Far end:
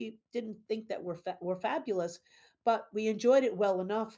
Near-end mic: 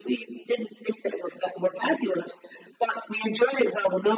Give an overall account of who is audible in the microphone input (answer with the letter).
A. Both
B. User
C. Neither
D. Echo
D